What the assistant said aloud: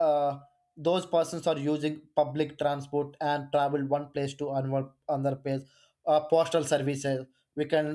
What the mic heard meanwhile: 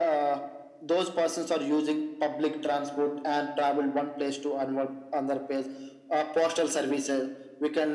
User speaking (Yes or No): No